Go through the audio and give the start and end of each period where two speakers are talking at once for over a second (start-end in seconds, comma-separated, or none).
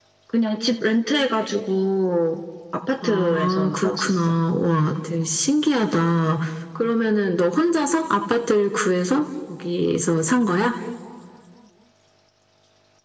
3.0-4.3